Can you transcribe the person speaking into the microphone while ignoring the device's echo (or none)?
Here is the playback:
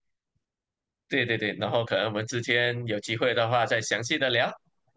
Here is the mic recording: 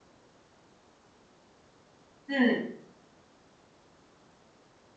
嗯。